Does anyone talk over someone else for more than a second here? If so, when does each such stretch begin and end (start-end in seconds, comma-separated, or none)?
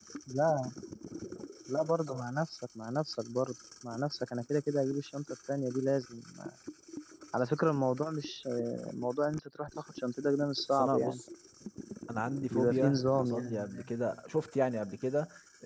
12.5-13.9